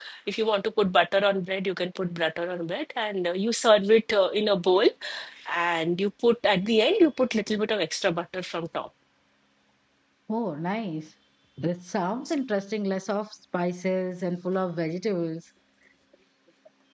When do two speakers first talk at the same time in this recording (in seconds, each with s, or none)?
none